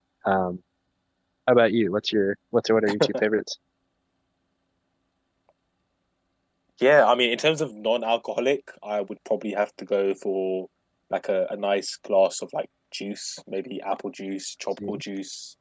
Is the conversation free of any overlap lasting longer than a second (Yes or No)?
Yes